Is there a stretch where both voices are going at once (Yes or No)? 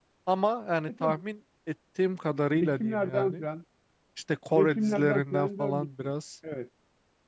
Yes